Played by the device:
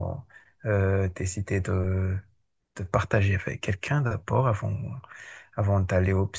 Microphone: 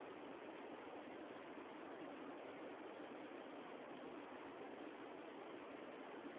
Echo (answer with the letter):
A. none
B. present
A